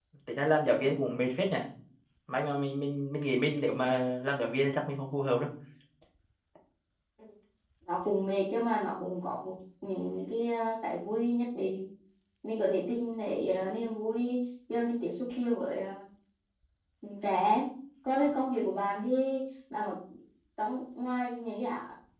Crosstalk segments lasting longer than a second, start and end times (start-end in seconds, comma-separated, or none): none